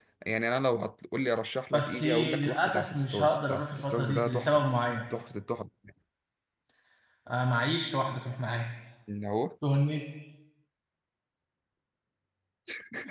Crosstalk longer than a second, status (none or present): present